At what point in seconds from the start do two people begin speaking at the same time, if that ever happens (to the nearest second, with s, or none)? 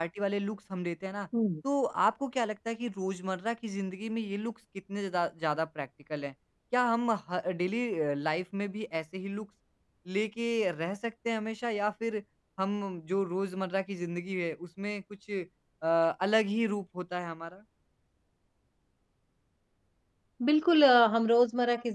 none